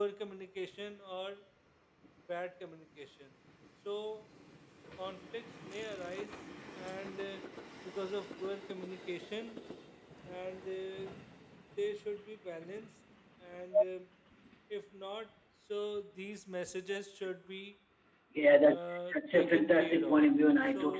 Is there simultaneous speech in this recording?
Yes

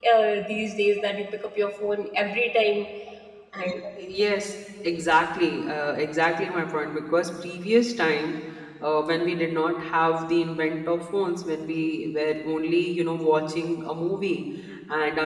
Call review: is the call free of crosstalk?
Yes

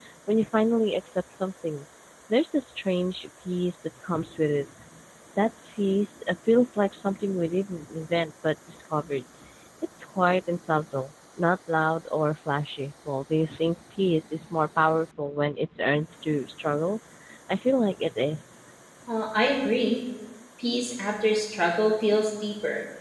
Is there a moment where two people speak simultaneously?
No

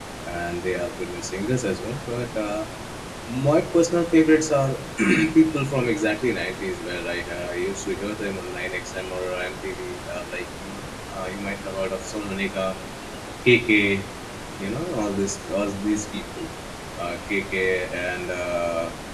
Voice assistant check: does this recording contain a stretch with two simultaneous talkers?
No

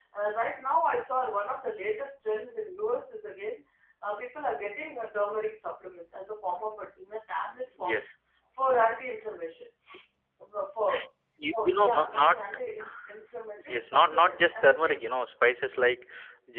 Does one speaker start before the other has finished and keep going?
Yes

